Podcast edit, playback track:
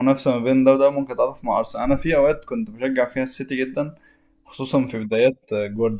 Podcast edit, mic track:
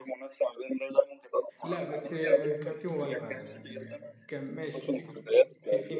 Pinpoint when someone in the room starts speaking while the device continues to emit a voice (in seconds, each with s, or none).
1.6 s